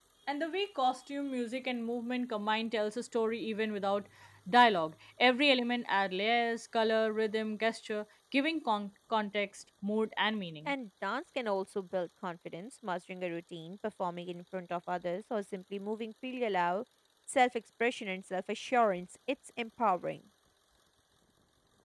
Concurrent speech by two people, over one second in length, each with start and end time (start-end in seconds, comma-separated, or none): none